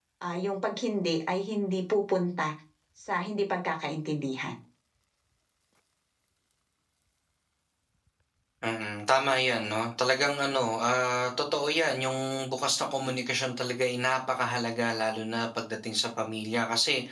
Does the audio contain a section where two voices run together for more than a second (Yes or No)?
No